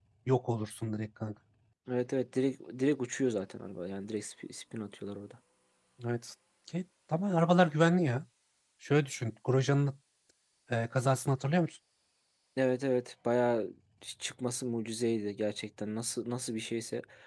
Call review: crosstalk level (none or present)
none